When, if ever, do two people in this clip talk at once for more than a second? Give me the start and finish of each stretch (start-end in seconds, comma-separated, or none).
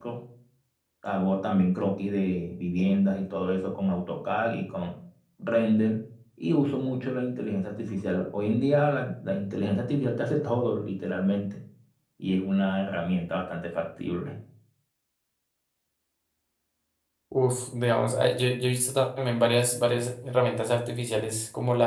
none